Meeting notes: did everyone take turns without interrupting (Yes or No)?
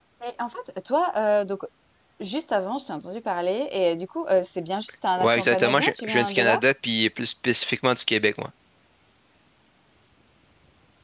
No